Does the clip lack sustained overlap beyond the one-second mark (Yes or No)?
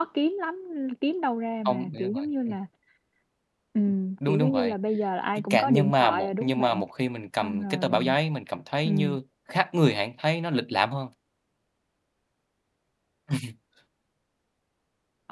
No